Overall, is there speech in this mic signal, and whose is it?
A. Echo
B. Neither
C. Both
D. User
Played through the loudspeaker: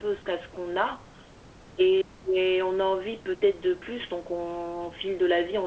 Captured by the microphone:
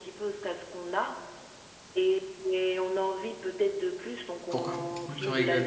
C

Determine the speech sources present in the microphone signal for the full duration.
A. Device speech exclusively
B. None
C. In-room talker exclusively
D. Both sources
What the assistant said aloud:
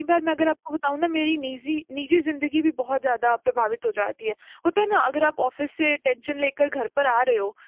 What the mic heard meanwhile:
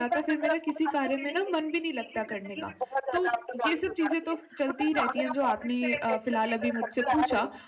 D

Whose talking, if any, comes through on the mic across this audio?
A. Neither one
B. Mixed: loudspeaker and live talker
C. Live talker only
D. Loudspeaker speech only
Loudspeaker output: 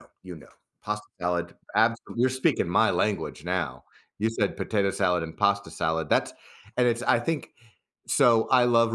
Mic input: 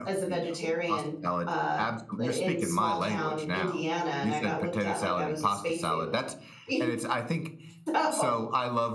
B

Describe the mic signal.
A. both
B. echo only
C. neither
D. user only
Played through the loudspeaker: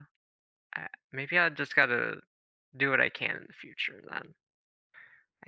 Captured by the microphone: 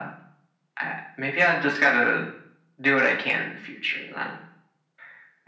B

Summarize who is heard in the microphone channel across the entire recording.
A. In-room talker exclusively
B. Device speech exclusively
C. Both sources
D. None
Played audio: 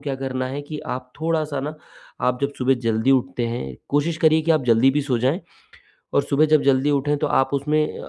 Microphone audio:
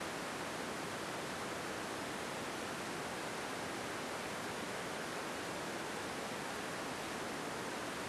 D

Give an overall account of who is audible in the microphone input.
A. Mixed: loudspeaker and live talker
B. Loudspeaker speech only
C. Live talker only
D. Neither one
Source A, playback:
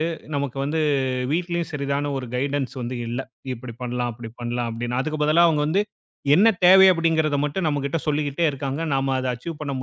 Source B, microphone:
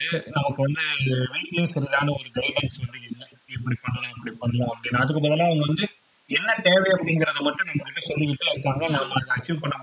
A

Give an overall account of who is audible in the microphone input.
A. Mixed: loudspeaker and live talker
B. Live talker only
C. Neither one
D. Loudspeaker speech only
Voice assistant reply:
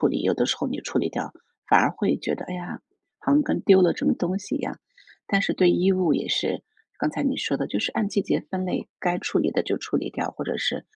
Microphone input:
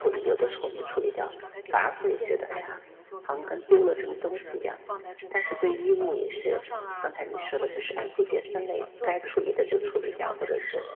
A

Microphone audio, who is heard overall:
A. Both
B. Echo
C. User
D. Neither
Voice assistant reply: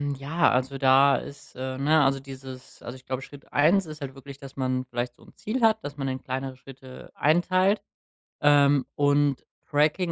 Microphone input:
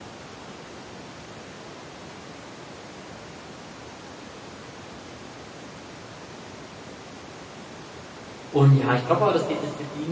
C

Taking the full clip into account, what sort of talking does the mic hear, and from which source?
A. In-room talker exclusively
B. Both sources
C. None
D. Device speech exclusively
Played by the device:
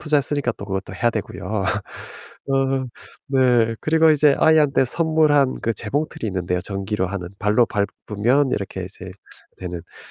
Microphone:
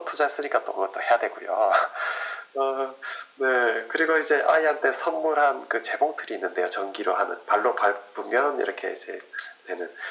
D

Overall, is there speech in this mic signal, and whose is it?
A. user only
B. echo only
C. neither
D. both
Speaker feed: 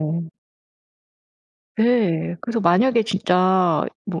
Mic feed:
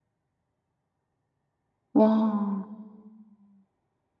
A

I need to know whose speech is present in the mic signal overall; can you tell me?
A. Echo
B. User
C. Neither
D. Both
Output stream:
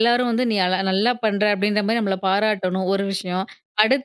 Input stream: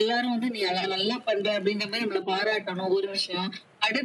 A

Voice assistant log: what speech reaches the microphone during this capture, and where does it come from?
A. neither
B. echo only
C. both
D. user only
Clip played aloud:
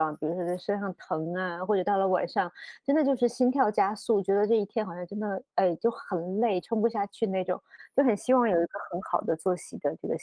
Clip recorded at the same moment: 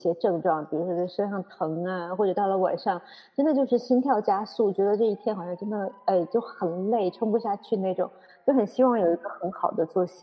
B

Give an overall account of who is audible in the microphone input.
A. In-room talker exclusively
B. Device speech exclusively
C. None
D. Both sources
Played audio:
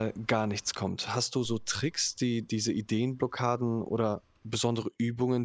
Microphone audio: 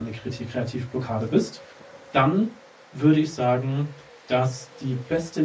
A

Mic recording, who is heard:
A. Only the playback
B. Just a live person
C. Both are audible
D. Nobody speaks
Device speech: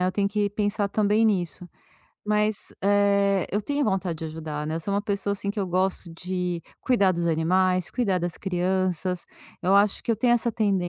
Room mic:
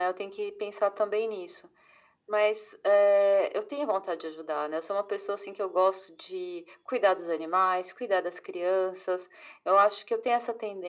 A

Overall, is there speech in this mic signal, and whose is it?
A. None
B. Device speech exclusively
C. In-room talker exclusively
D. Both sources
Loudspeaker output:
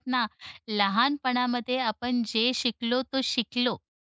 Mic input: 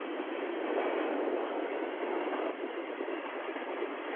A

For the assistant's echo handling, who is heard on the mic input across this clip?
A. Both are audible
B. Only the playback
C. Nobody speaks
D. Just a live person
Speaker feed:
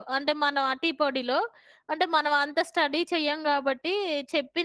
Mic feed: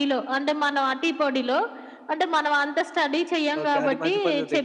A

